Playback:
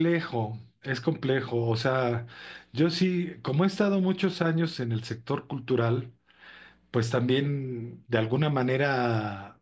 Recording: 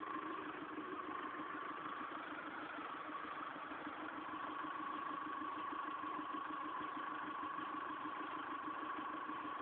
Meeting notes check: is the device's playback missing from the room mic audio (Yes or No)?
Yes